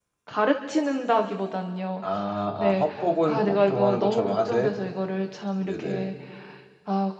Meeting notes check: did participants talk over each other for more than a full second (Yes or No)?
Yes